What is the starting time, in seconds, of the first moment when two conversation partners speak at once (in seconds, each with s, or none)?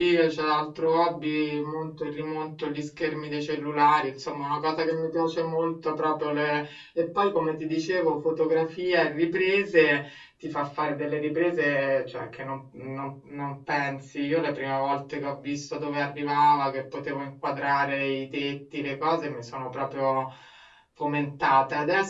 none